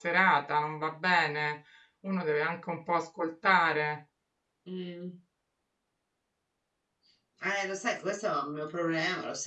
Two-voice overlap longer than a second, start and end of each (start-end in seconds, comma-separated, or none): none